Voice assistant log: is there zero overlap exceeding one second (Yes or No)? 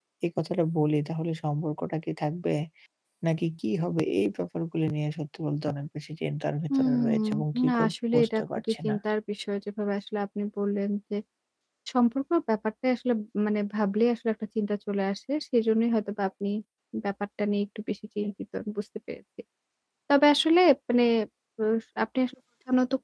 No